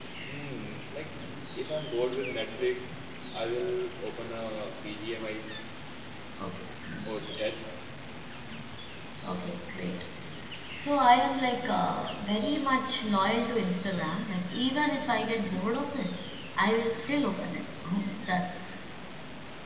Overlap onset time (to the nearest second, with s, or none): none